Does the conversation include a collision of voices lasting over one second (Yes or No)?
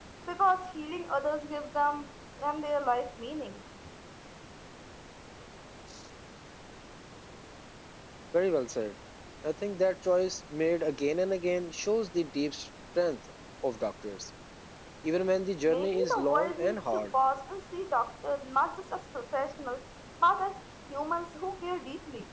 Yes